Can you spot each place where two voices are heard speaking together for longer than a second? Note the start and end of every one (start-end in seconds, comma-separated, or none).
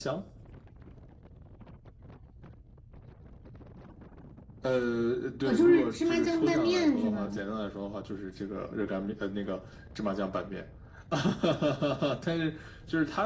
5.5-7.4